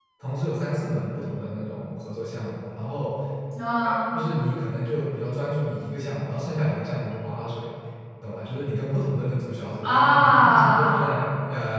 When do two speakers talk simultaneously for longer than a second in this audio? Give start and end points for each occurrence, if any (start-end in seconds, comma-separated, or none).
9.8-11.1